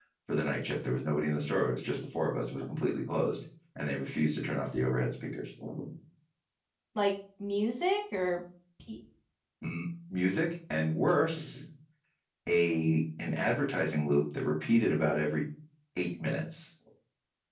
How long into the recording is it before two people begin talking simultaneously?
none

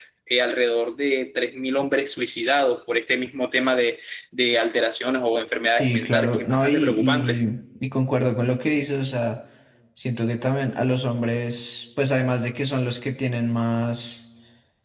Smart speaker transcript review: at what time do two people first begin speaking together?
6 s

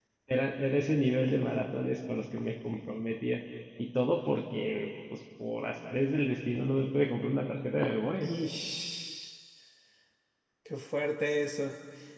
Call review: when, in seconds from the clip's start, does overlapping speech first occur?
none

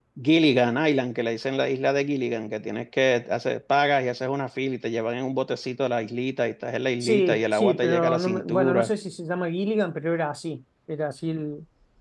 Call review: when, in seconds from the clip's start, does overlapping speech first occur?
7 s

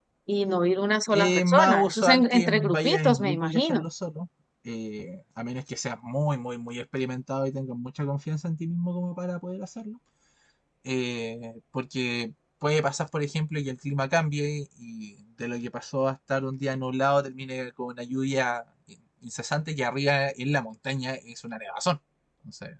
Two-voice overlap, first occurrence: 1 s

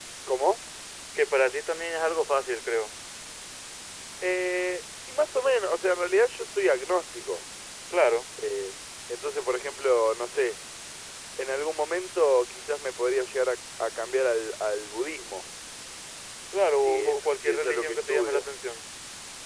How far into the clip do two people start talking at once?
17 s

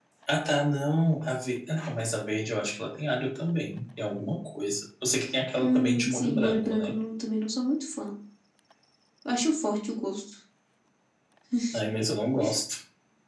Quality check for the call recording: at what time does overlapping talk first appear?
6 s

